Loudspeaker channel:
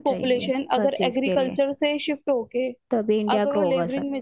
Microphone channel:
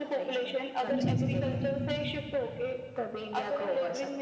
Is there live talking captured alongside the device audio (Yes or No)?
Yes